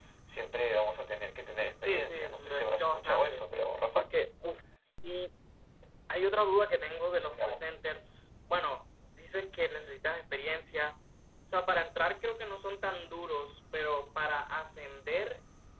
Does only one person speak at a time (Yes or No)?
No